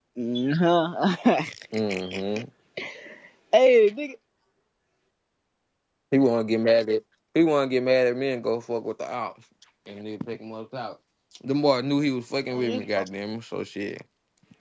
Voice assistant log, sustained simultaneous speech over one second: none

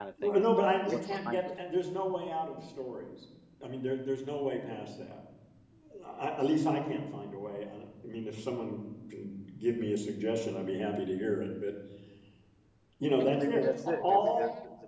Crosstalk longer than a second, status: present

